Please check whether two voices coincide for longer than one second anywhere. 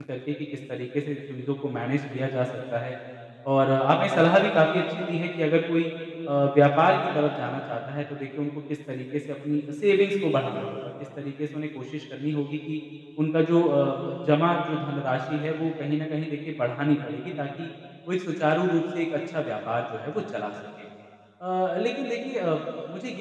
No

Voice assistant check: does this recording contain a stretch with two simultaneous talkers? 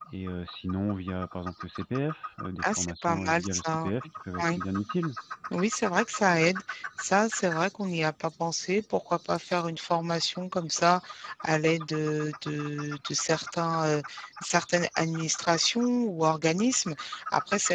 Yes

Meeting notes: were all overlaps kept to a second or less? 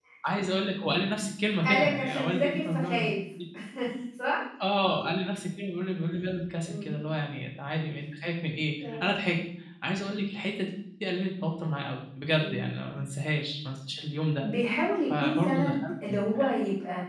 No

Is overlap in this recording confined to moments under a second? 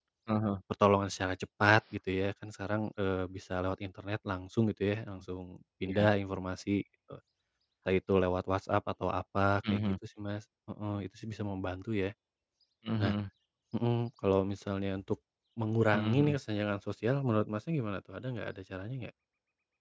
Yes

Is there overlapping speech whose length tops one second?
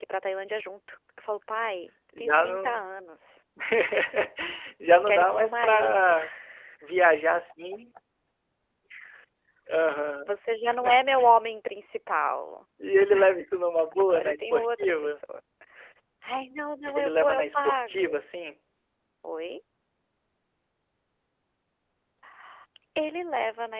Yes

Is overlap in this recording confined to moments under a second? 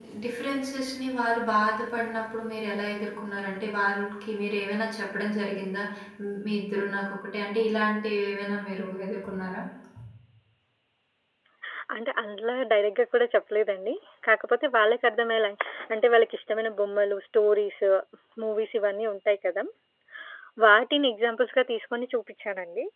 Yes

